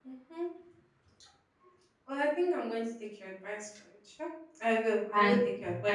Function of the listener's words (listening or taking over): taking over